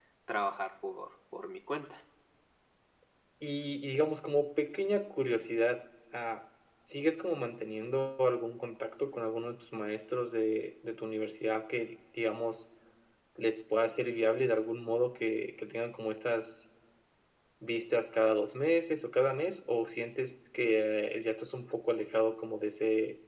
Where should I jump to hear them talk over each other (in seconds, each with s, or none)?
none